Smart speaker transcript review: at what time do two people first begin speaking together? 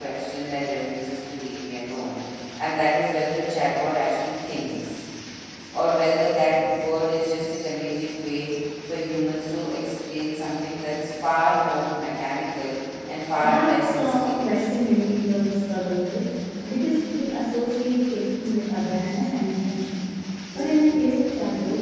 13.4 s

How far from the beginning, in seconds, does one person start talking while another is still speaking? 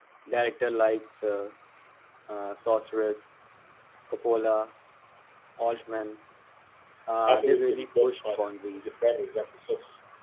7.3 s

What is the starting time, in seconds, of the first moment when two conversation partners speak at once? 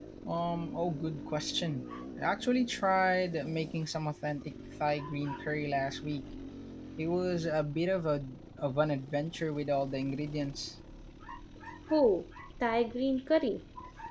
none

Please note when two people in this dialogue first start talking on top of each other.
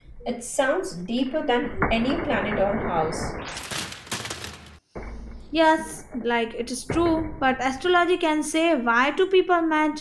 none

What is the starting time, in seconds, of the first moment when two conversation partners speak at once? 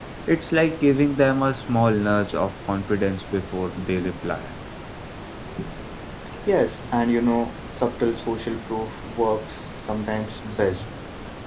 none

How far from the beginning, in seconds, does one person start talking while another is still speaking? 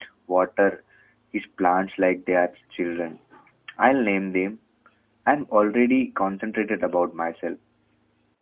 none

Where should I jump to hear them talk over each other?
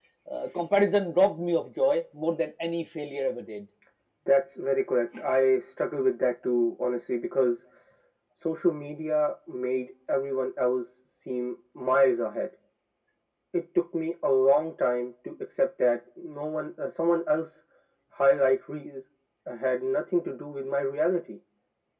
none

